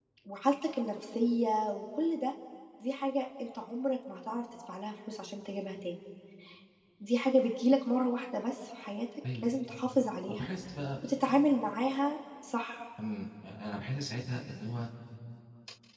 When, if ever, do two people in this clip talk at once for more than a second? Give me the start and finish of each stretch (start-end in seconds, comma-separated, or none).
none